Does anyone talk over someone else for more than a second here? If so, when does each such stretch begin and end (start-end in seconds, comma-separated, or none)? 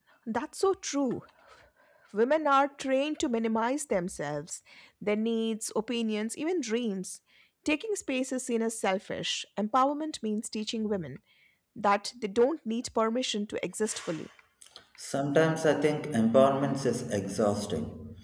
none